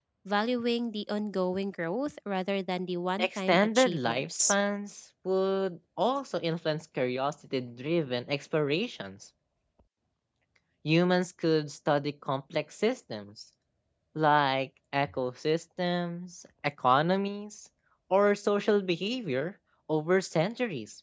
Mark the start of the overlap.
3.2 s

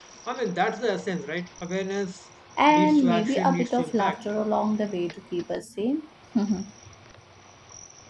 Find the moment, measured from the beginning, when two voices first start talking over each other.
2.7 s

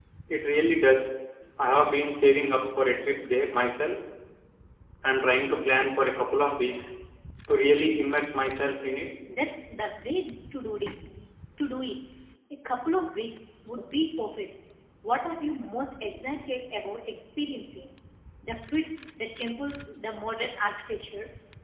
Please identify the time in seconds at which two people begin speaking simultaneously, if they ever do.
none

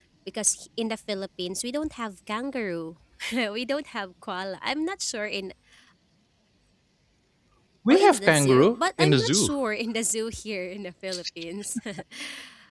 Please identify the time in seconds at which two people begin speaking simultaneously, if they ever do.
7.9 s

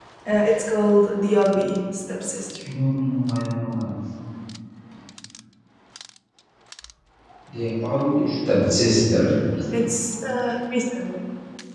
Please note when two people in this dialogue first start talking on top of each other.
none

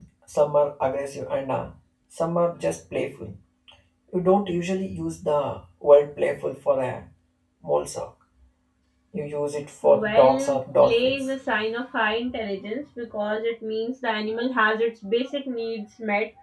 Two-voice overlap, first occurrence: 10.0 s

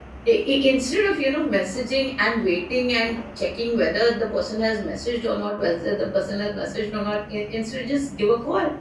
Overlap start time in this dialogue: none

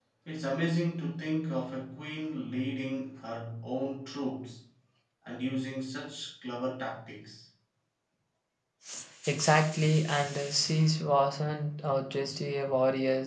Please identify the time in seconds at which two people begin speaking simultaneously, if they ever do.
none

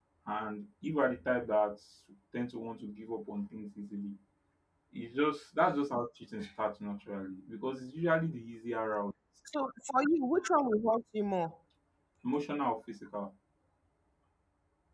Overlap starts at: none

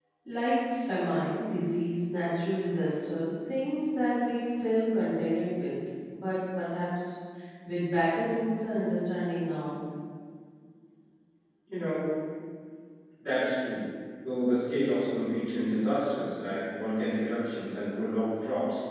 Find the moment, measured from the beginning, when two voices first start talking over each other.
none

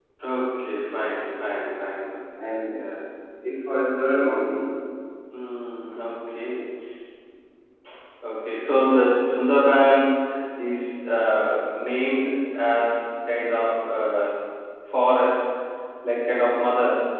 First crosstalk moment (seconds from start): none

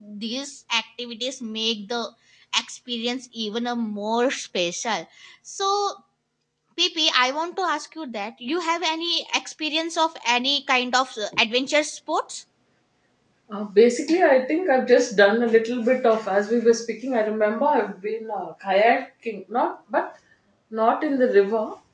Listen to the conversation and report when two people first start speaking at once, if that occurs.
none

